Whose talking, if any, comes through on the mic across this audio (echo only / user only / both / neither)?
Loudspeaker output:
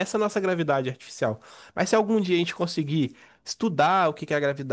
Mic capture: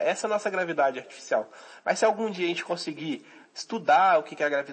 echo only